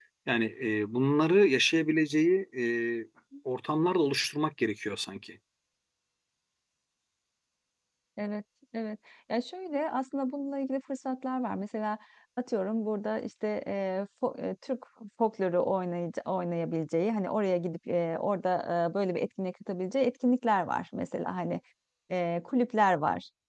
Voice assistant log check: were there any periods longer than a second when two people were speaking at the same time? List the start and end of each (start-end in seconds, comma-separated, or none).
none